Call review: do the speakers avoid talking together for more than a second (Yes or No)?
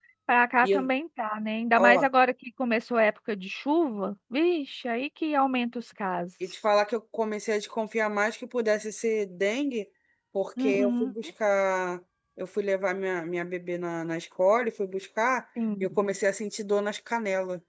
Yes